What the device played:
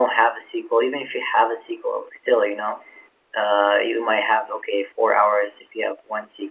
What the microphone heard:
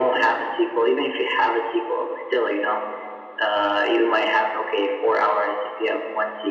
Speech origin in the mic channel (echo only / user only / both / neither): echo only